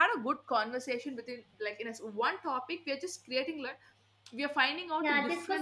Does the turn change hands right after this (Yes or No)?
Yes